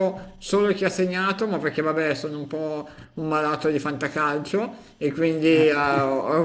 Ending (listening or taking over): listening